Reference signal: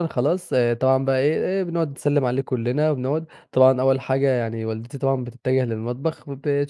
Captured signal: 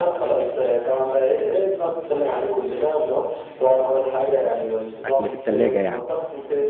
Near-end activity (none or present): present